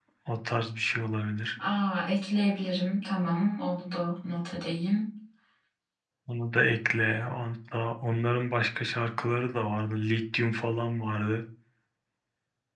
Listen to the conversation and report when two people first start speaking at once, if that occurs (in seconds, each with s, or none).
none